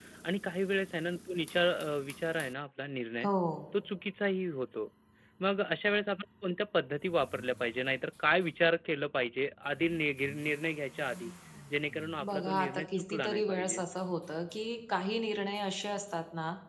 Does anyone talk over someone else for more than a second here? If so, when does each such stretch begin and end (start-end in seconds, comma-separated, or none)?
12.3-13.8